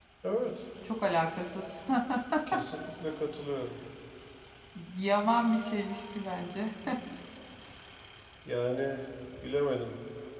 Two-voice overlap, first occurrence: none

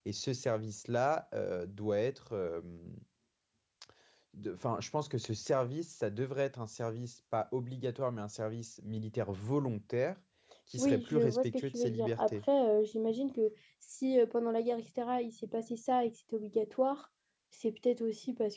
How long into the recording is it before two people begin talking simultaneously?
10.8 s

